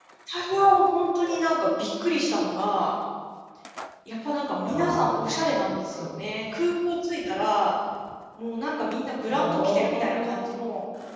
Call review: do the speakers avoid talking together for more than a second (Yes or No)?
No